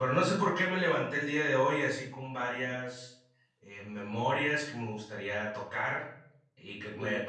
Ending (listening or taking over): listening